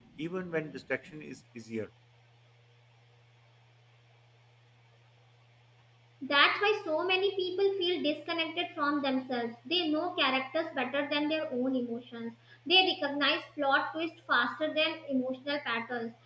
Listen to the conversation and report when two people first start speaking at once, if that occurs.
none

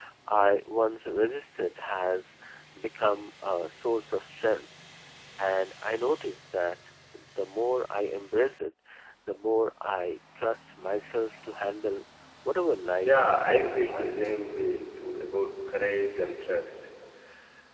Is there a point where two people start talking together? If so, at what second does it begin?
13.0 s

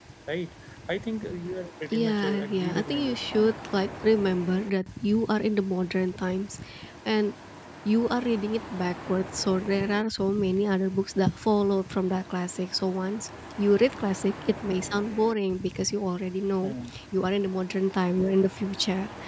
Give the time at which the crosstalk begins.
1.9 s

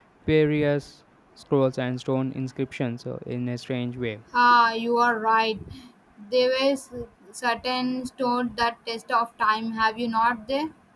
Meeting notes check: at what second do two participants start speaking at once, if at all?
none

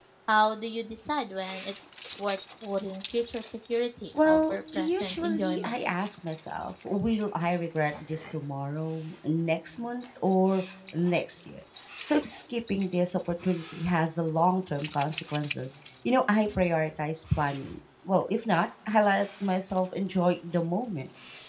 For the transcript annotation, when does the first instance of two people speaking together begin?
4.1 s

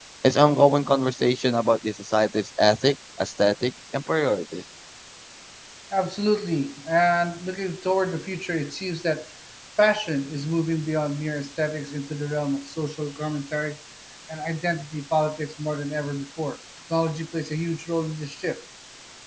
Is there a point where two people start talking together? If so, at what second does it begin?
none

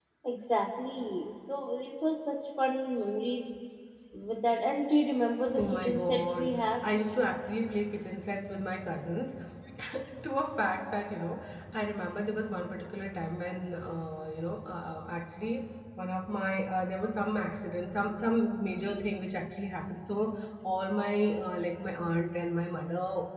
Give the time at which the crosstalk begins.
5.5 s

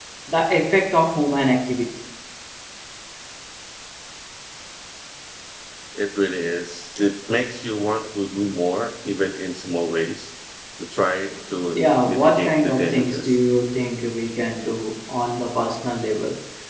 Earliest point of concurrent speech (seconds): 11.7 s

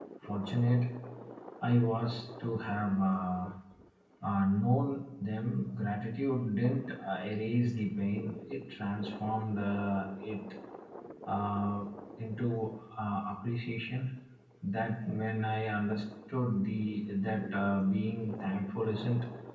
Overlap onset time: none

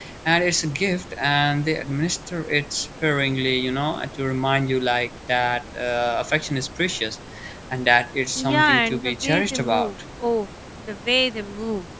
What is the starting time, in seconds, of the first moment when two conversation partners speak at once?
8.4 s

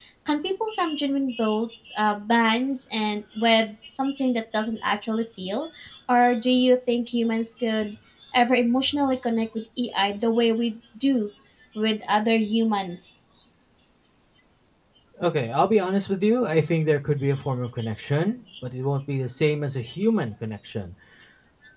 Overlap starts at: none

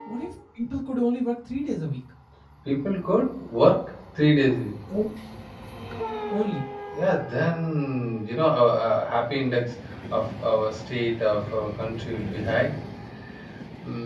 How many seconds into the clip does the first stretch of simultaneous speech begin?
none

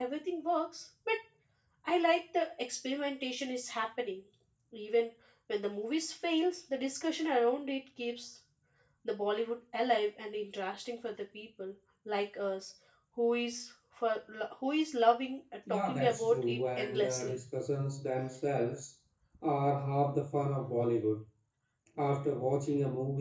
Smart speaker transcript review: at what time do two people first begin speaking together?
15.7 s

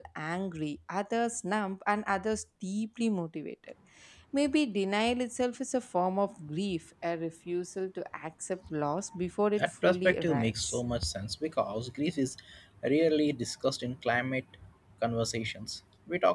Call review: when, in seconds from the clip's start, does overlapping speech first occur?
9.6 s

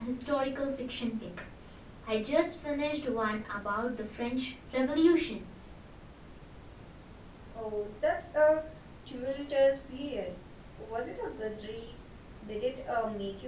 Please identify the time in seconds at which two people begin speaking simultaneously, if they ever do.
none

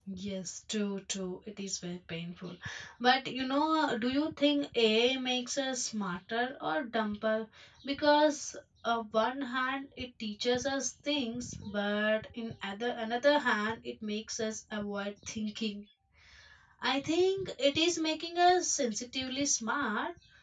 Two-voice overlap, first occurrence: none

